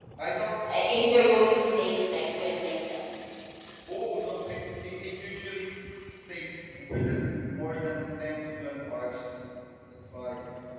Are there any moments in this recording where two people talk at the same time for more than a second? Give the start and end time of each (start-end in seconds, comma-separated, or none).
none